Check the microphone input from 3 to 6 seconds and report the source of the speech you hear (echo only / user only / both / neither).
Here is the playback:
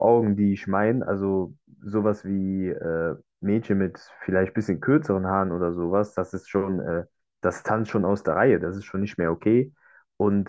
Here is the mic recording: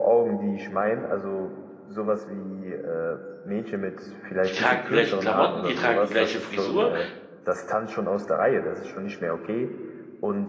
both